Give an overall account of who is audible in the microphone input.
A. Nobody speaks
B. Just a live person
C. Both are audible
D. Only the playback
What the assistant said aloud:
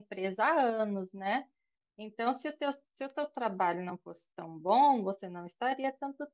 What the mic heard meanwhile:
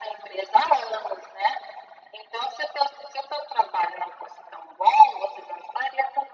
D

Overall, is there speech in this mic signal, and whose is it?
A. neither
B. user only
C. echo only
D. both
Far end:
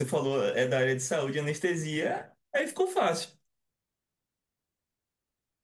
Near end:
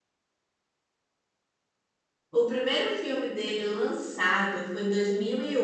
B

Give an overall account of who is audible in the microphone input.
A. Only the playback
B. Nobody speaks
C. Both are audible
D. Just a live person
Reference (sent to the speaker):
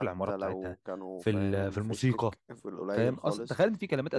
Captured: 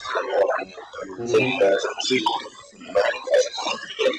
C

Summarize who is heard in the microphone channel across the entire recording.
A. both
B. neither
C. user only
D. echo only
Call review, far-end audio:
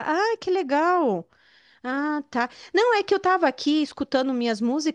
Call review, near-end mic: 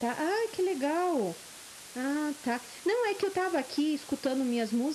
D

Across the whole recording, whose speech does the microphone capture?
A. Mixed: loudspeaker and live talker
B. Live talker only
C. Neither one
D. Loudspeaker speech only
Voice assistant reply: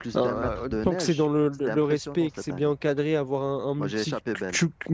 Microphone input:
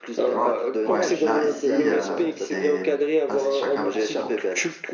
A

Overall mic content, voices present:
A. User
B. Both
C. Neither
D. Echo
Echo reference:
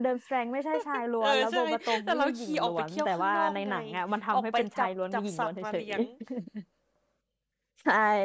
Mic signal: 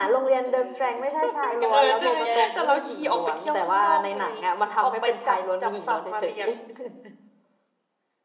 B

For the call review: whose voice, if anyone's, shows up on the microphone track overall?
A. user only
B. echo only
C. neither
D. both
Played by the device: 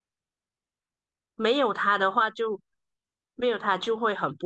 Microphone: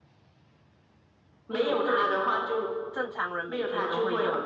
D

